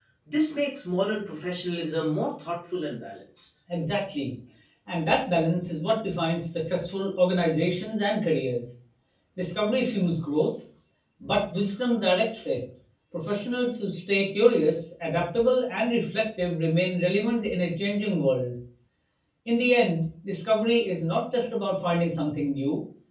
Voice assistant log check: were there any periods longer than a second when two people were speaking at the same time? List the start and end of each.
none

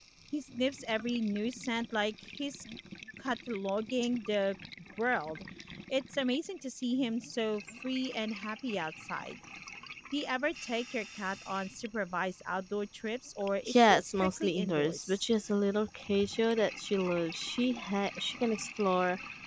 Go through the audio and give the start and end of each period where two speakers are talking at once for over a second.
13.7-15.2

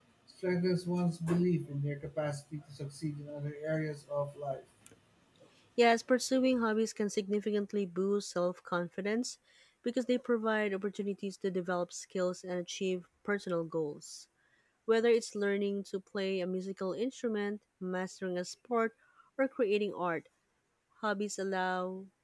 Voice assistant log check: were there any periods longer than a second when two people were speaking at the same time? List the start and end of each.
none

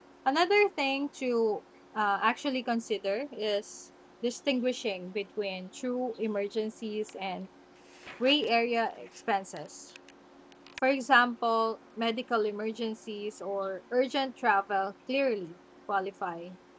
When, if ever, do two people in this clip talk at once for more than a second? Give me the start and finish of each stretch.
none

